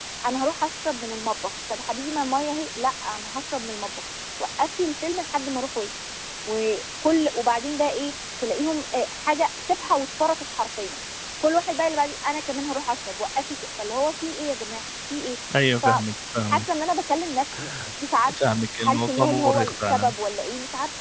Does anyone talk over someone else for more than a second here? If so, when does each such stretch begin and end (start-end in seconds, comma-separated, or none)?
18.4-20.1